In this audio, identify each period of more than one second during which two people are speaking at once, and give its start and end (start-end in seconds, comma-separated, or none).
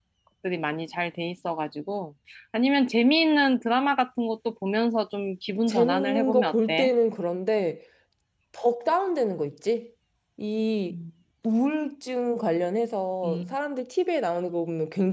5.7-6.9